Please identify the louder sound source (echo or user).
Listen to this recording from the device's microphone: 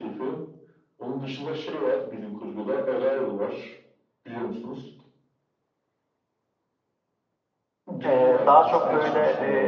user